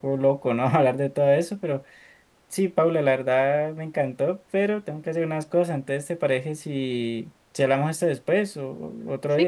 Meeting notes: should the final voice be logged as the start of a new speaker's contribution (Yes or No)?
Yes